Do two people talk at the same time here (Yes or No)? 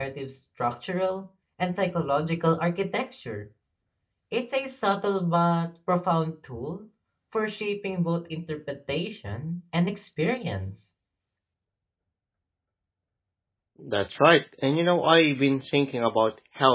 No